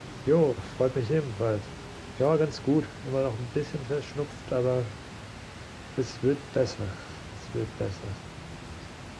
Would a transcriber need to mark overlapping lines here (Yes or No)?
No